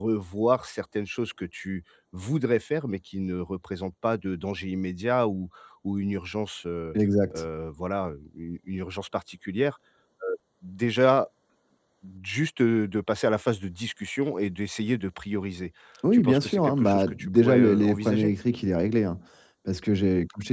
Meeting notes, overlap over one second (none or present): present